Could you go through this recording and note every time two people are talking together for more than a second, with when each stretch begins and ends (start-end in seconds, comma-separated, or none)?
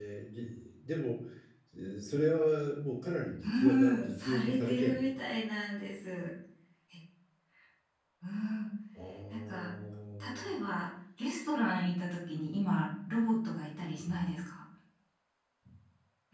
3.4-5.1